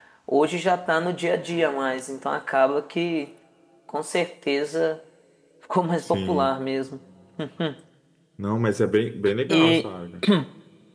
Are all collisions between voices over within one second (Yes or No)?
Yes